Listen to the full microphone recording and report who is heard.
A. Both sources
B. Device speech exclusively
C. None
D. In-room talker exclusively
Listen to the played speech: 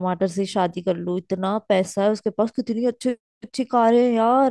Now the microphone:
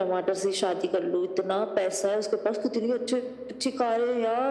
B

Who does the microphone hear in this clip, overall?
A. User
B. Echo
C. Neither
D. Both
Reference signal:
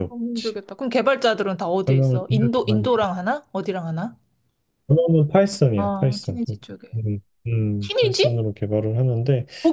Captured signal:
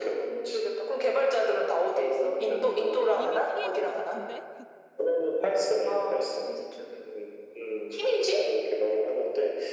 D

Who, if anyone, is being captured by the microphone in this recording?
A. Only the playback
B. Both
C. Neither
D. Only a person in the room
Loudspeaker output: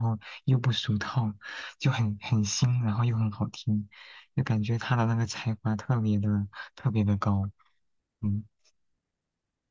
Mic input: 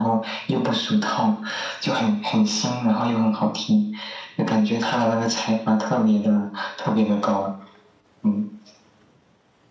A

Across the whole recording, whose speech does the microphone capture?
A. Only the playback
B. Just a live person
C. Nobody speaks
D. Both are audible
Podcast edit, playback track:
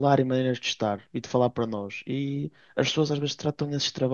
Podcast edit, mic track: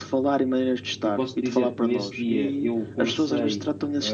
D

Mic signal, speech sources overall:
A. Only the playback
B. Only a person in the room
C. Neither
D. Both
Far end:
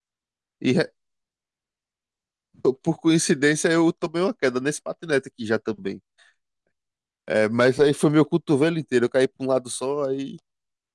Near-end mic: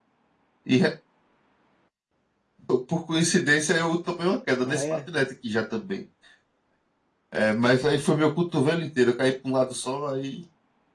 D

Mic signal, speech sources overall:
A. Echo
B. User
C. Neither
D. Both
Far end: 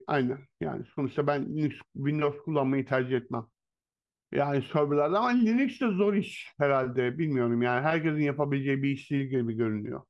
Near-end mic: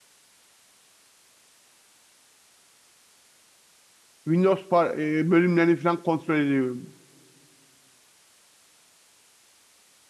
B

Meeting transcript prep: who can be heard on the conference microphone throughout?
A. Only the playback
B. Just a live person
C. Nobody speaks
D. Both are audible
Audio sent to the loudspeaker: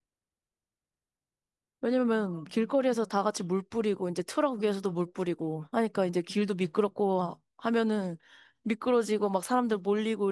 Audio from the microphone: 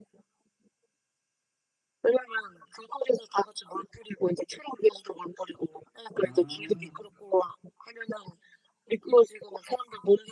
D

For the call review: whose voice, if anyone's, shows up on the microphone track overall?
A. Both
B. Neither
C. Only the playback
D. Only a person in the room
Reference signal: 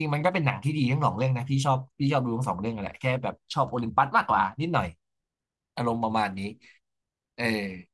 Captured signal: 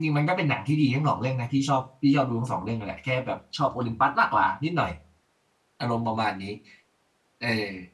C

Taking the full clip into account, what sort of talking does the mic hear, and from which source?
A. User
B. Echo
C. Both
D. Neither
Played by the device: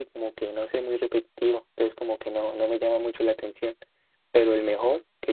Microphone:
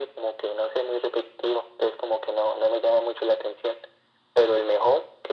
B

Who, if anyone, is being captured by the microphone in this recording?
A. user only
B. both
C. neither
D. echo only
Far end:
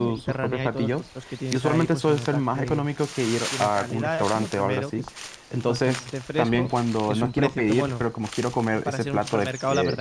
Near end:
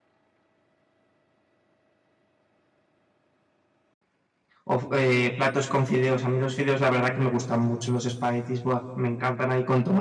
A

